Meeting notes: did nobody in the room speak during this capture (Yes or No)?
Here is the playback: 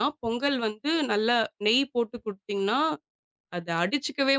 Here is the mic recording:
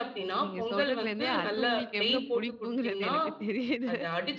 No